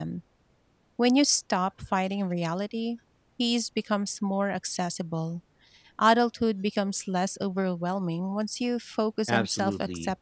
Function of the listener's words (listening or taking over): taking over